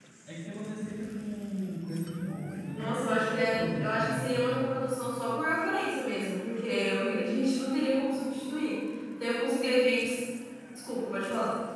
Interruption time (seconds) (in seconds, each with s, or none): 2.8 s